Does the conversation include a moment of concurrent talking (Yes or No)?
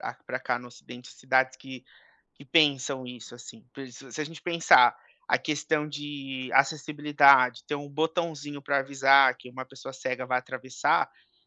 No